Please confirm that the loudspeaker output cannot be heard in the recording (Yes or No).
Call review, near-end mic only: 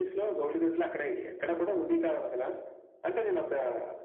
No